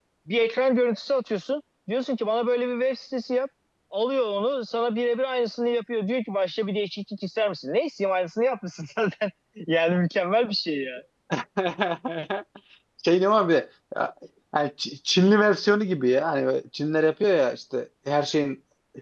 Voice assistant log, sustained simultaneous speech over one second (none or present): none